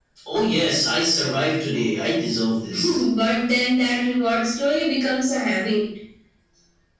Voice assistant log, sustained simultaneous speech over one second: none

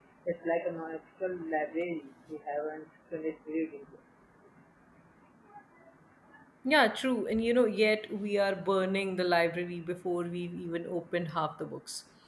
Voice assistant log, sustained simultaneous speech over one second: none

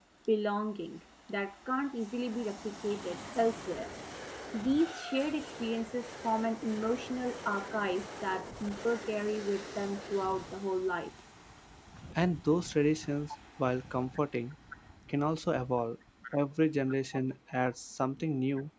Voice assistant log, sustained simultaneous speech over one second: none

